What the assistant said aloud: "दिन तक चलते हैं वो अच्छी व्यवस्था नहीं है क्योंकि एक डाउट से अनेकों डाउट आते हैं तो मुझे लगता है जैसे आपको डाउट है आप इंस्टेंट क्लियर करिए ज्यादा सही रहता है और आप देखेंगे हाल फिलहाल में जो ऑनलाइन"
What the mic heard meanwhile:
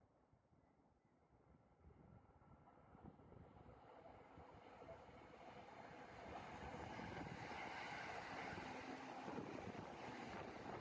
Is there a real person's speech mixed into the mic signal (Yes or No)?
No